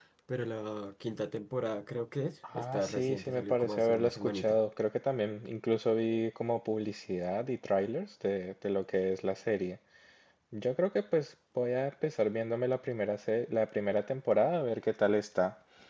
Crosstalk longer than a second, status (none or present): present